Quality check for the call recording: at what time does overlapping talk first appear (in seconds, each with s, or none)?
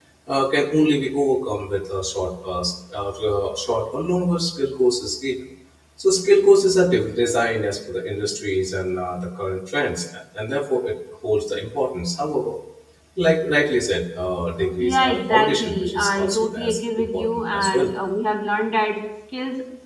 14.6 s